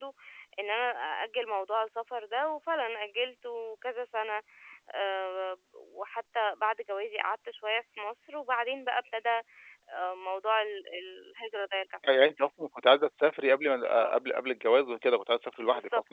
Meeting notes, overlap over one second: none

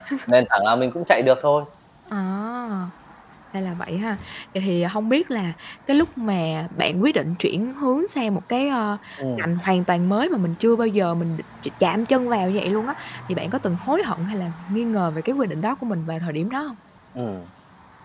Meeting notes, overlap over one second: none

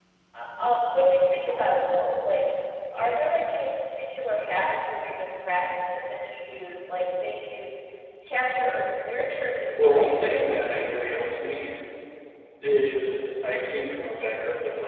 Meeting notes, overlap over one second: present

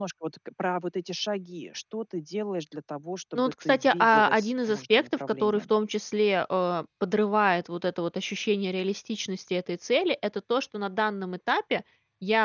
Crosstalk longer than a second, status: present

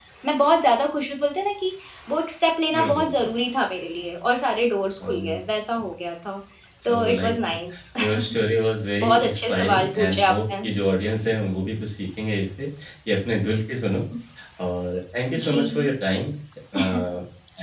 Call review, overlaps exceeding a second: present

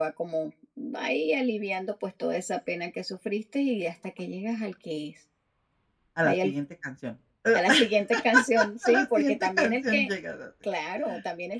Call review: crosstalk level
present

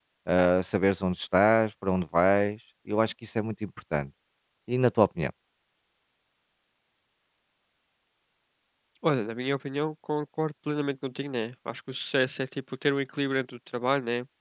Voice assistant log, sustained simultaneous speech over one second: none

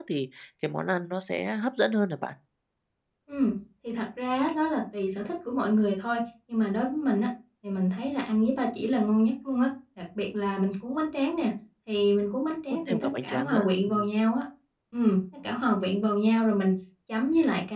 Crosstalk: present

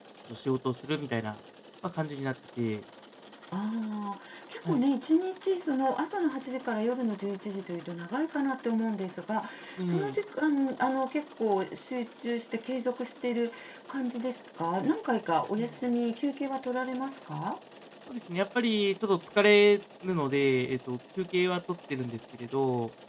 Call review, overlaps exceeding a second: none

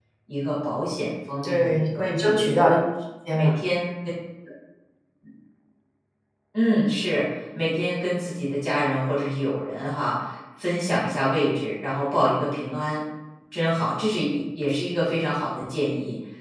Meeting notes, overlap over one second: present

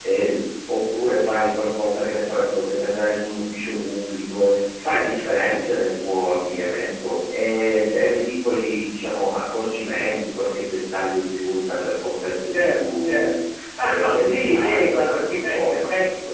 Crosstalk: present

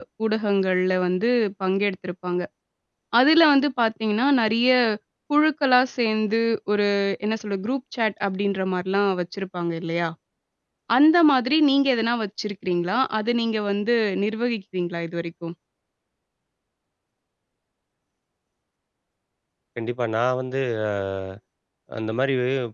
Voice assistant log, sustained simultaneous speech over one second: none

